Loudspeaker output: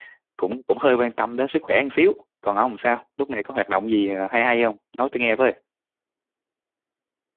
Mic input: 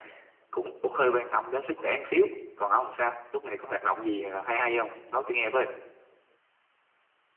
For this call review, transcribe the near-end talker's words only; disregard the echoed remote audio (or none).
none